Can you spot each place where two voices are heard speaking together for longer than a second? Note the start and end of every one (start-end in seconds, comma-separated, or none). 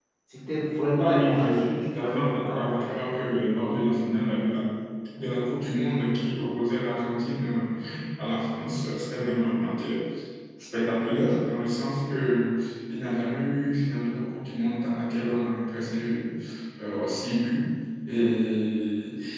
1.0-3.0